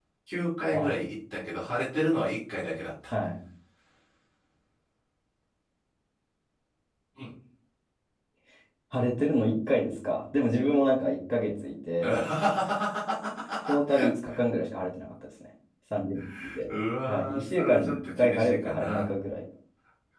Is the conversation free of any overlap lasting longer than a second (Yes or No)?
No